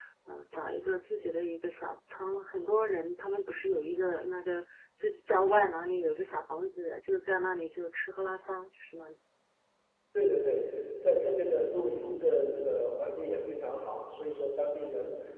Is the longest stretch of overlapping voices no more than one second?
Yes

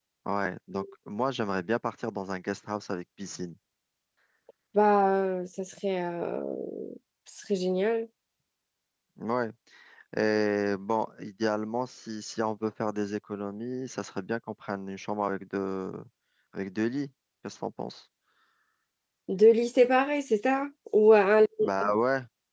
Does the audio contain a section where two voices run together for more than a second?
No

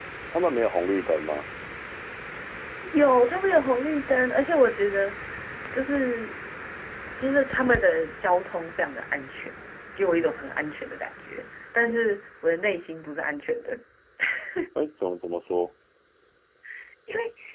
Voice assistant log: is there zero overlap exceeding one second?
Yes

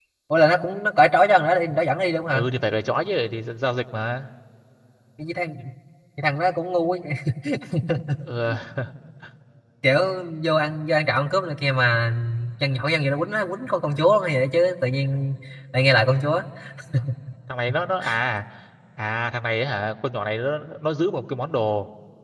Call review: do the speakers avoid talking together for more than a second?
Yes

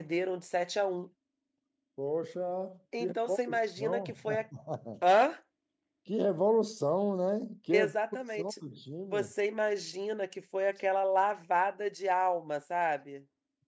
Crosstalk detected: Yes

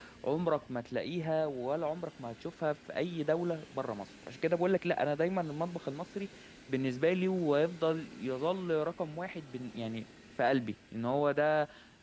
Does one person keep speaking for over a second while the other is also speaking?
No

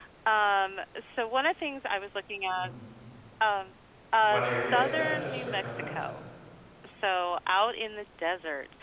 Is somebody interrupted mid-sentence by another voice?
Yes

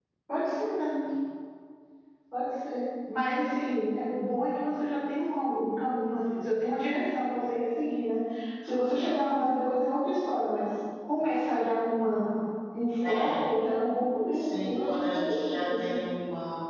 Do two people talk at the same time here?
Yes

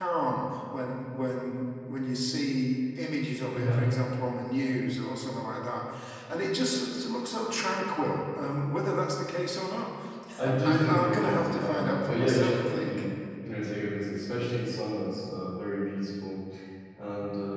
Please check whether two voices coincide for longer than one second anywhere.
Yes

